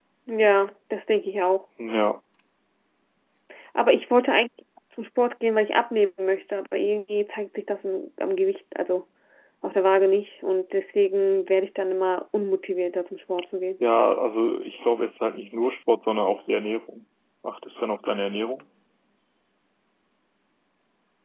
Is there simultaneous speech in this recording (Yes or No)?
No